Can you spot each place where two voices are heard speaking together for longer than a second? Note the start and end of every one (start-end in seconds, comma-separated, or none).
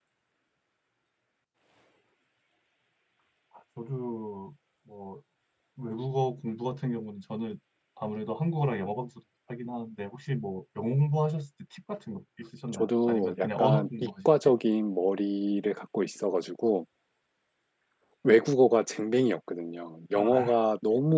12.7-14.3